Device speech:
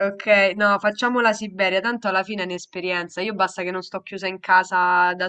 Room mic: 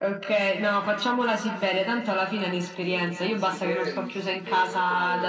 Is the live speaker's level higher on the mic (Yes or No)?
No